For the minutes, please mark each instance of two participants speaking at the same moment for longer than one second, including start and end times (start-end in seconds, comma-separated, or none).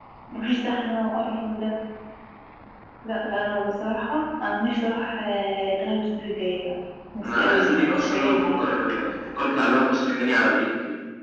7.3-8.6